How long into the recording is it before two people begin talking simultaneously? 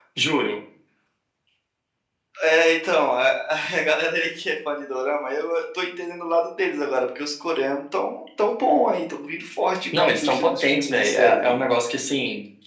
9.9 s

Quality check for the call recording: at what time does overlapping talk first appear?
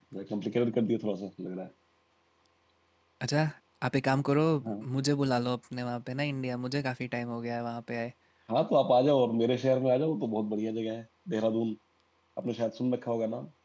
none

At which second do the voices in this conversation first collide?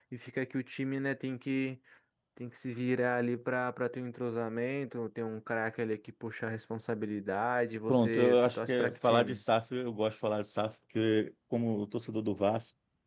7.9 s

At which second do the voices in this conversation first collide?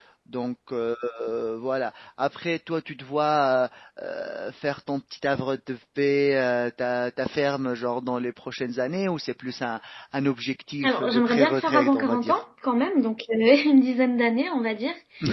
10.8 s

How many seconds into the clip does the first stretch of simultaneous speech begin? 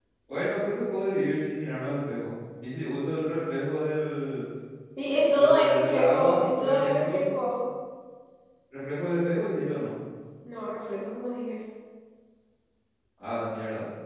5.2 s

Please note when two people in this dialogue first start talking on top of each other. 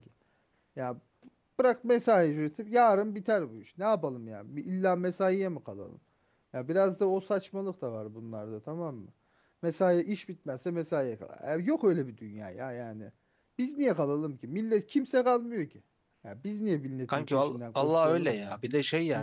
17.1 s

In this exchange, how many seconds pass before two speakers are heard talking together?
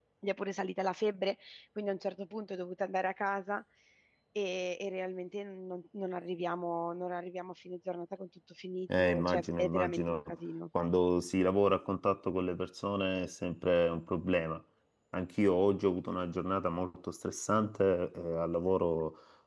8.9 s

